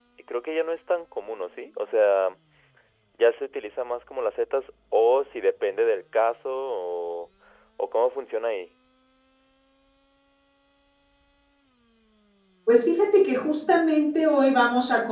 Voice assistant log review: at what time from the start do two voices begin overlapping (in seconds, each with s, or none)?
none